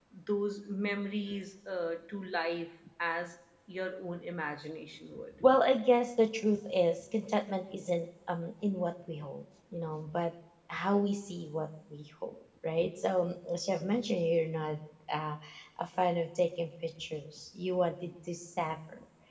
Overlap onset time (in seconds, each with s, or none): none